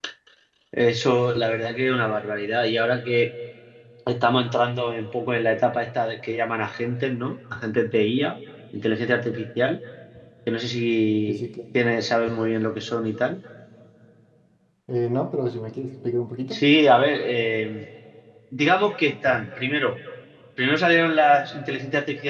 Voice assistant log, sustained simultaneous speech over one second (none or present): none